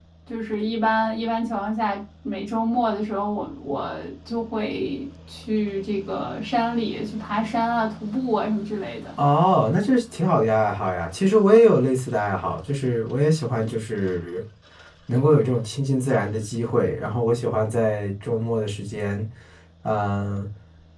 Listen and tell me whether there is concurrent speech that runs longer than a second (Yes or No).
No